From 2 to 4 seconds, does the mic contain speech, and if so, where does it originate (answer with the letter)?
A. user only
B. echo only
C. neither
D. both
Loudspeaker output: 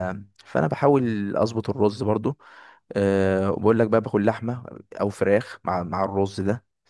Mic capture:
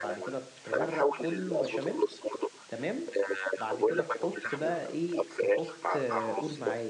D